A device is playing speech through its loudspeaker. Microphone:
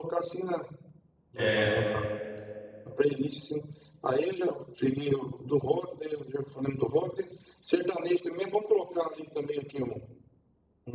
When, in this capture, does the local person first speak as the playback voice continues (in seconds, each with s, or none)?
1.4 s